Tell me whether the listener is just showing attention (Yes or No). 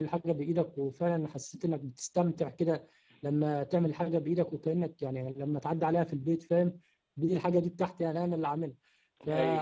Yes